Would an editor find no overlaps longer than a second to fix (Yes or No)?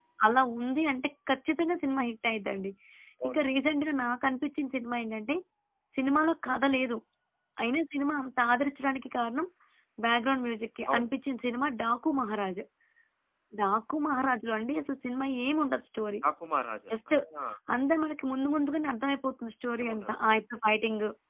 Yes